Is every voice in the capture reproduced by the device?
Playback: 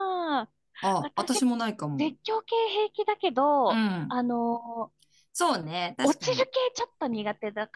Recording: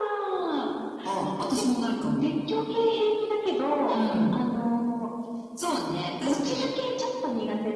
Yes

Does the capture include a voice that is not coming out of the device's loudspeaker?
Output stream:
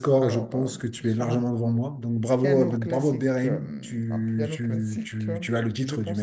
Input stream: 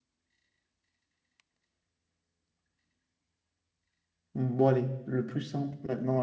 Yes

